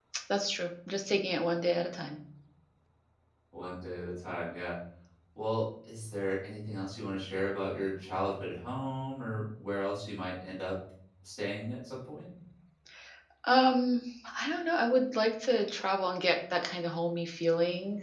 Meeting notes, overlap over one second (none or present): none